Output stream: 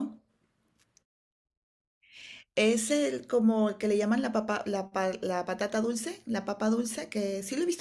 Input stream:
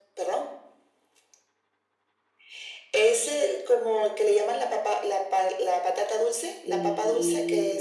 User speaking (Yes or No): Yes